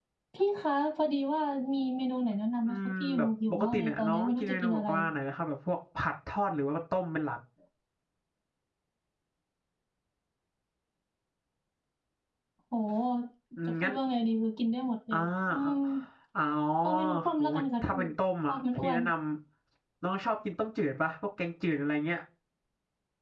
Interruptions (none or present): present